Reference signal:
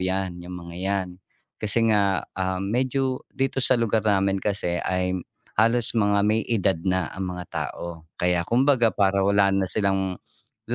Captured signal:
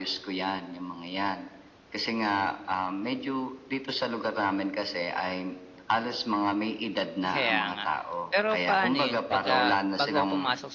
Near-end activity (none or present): present